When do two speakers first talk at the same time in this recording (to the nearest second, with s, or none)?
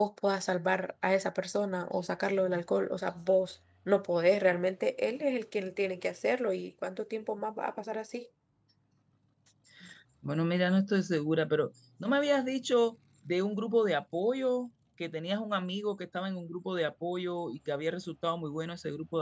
none